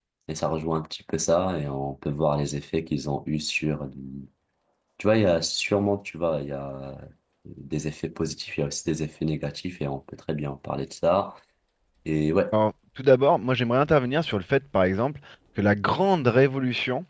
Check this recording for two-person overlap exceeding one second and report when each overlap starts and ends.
none

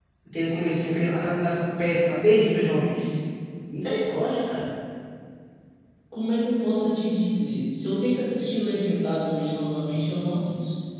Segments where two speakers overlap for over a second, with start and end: none

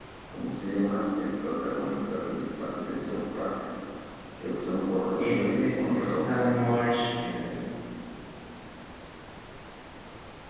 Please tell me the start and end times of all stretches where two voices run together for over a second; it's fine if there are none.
5.2-6.5

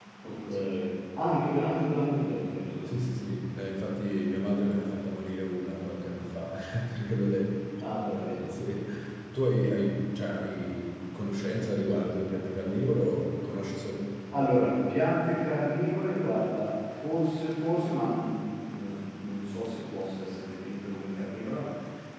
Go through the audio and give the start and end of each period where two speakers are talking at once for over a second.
none

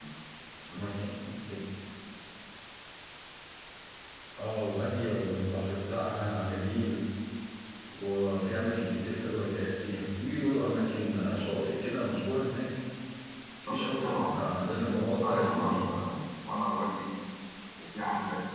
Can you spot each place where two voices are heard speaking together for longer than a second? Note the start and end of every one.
13.7-15.9

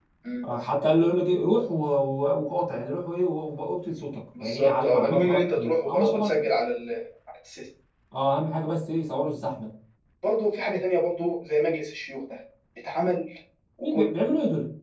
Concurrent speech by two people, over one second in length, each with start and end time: 4.4-6.5

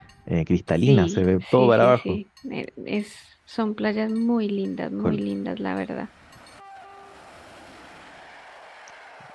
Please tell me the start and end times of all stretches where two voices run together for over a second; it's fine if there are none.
0.9-2.2

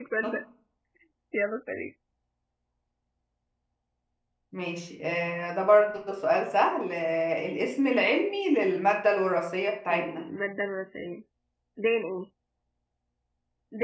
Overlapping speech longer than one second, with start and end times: none

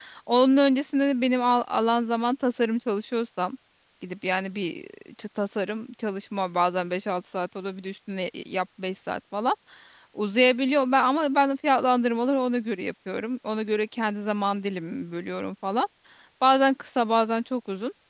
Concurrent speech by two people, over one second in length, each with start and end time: none

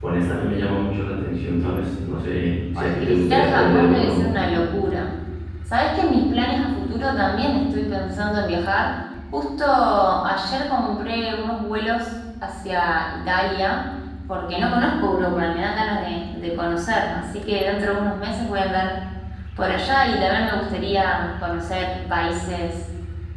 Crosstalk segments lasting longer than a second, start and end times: 2.8-4.4

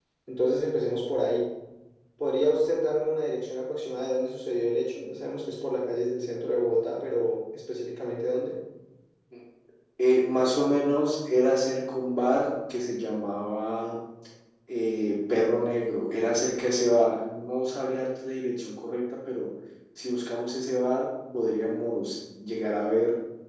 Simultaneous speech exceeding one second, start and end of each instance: none

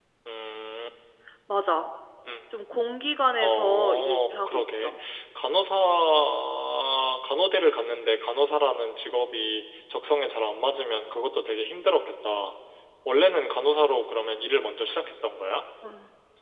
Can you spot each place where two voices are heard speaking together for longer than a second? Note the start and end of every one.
3.4-4.9

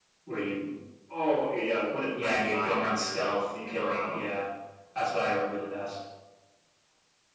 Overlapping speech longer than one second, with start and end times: 2.1-4.4

